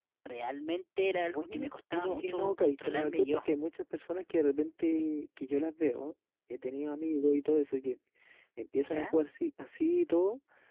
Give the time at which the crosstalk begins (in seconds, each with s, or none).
1.3 s